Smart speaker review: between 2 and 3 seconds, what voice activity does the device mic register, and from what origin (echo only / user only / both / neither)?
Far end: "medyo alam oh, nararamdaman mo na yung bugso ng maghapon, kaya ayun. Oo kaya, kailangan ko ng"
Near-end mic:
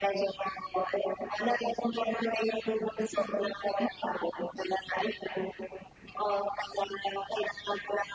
echo only